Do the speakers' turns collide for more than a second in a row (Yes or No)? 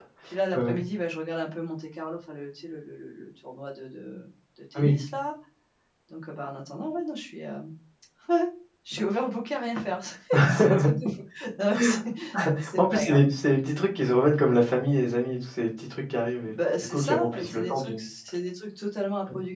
Yes